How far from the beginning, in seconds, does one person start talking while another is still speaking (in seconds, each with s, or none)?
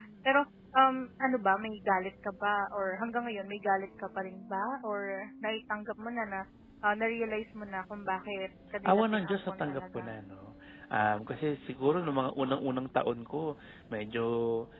8.8 s